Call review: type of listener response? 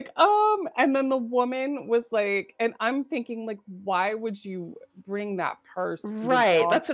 taking over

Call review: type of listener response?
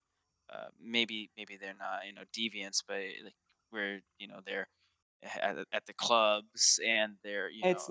taking over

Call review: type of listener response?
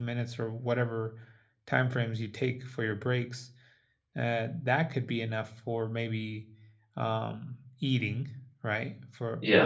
listening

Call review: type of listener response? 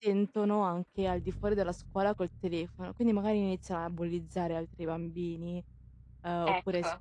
listening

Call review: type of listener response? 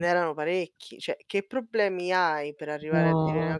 listening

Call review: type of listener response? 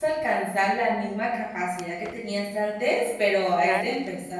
listening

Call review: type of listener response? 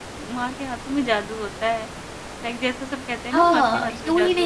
taking over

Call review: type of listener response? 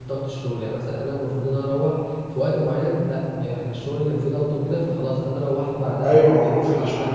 taking over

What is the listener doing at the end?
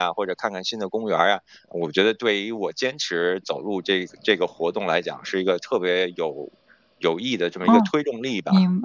taking over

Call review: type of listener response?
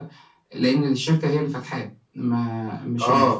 taking over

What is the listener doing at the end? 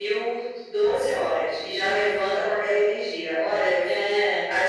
listening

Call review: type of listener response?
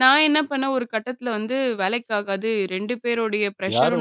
taking over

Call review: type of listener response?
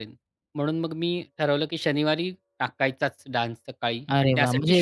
taking over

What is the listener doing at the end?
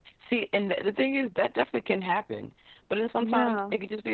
listening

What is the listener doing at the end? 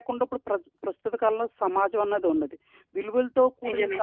listening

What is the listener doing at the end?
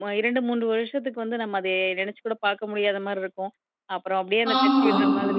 listening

